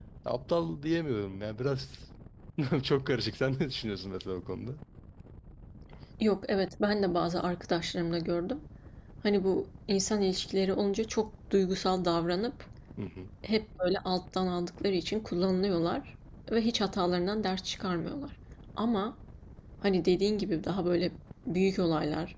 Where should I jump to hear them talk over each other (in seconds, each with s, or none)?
none